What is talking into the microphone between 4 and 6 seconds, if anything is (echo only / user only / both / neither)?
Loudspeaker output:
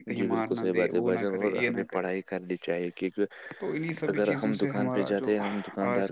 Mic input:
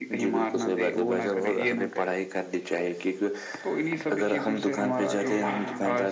both